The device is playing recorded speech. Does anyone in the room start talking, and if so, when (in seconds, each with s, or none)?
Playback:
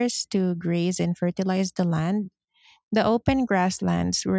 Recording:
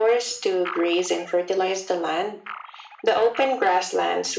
none